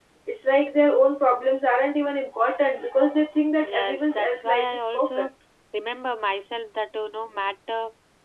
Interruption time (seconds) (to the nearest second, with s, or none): 4 s